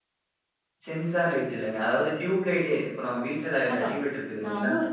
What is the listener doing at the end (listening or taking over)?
taking over